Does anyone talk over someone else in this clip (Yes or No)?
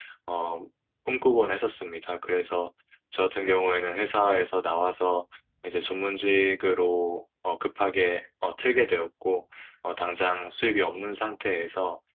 No